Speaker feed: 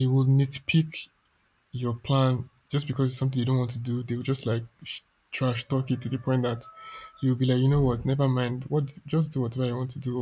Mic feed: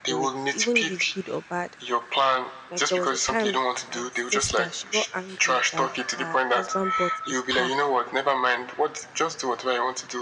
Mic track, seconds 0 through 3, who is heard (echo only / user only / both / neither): both